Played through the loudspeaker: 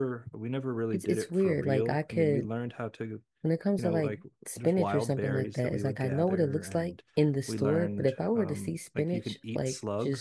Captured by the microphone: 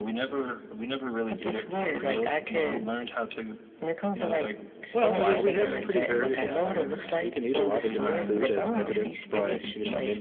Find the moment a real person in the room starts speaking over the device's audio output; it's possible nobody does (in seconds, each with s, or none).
4.9 s